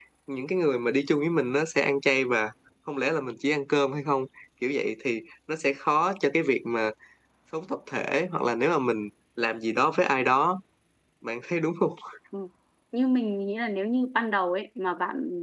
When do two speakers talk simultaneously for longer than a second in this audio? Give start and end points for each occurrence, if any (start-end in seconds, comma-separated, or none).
none